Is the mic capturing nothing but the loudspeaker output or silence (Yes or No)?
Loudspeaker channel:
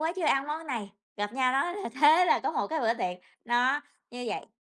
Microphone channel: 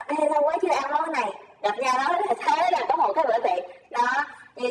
Yes